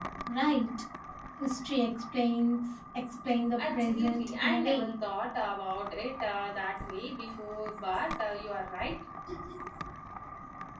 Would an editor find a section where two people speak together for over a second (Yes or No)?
Yes